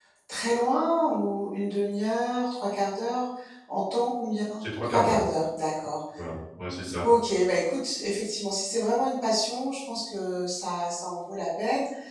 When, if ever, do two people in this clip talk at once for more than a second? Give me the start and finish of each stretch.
none

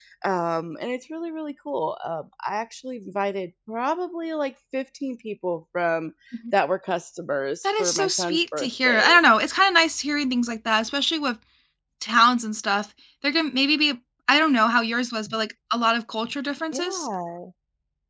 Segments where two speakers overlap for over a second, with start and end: 7.6-9.2

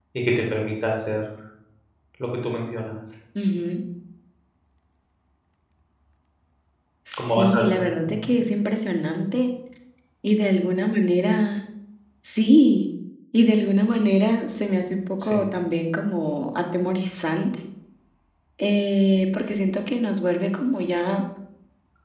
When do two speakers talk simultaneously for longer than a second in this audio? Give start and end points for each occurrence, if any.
7.2-8.4

